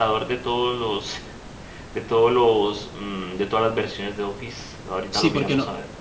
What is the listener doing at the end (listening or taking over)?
taking over